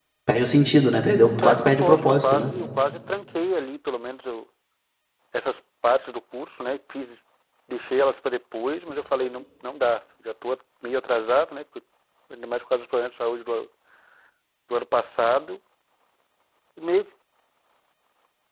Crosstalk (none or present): present